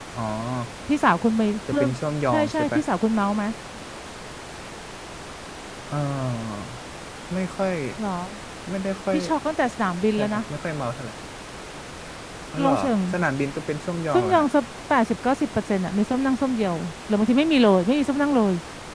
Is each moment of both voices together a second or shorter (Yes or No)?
Yes